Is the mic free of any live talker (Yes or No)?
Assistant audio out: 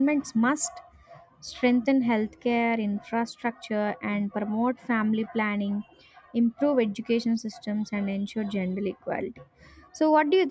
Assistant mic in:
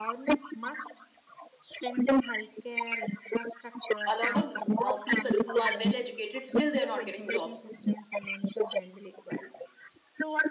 No